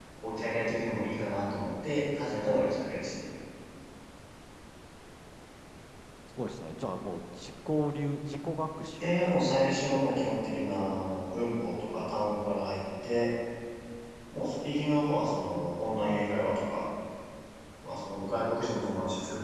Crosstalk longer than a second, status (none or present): present